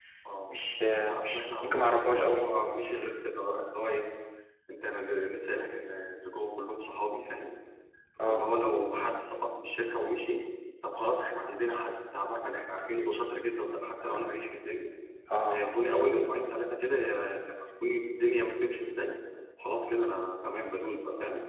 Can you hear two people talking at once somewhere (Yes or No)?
Yes